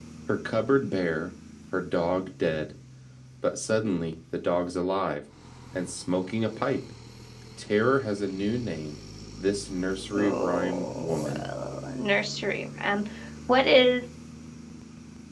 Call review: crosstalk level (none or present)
present